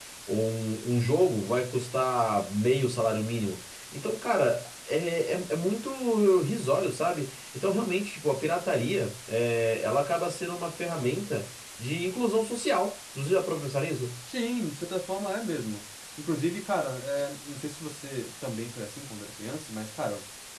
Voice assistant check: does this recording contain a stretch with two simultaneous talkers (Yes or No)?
No